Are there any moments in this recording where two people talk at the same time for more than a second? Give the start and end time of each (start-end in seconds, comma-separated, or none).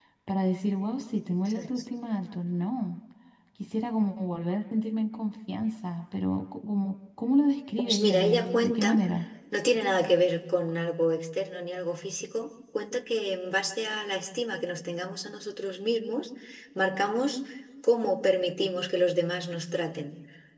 7.8-9.0